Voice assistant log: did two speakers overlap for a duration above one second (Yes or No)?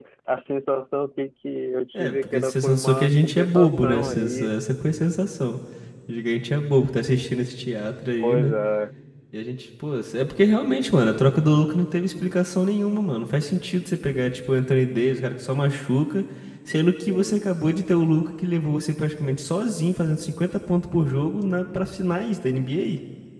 Yes